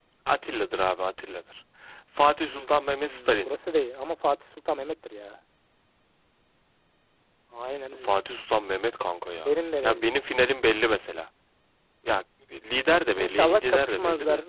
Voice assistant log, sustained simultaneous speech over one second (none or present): present